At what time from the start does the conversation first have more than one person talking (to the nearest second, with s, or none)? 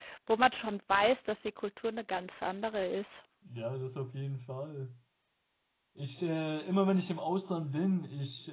none